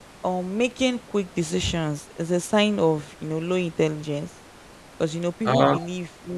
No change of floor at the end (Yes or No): Yes